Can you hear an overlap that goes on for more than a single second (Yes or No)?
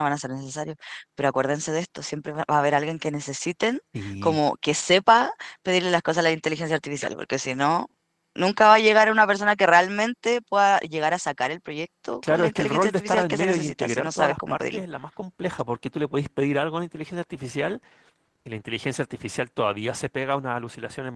Yes